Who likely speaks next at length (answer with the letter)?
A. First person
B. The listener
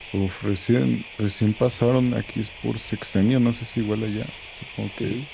B